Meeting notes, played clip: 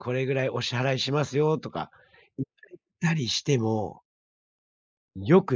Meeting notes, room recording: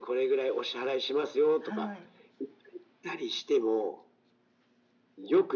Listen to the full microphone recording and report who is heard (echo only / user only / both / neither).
both